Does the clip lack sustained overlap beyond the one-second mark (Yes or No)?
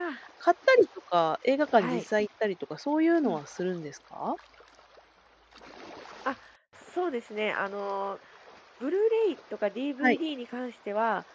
Yes